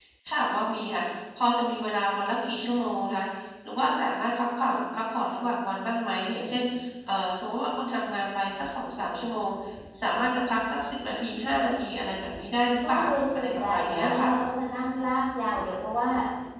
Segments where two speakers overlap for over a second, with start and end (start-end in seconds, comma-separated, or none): 12.9-14.4